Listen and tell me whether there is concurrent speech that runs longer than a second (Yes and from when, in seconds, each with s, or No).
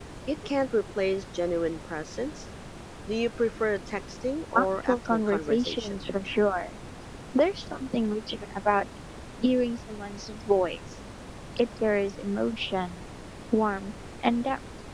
Yes, from 4.5 s